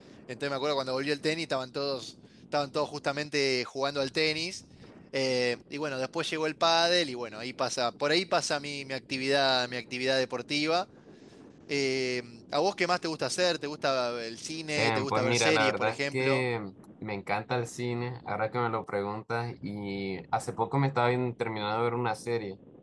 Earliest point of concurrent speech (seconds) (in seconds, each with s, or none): 14.8 s